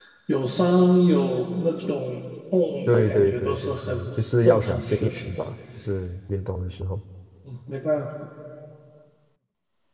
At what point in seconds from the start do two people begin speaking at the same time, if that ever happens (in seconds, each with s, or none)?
2.9 s